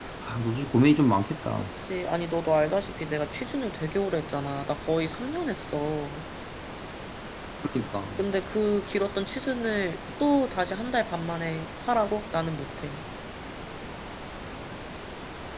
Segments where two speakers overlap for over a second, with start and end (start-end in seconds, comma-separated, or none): none